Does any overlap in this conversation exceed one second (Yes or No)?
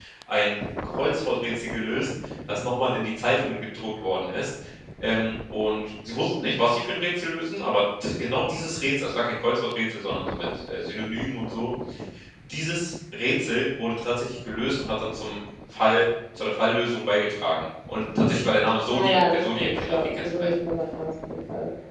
Yes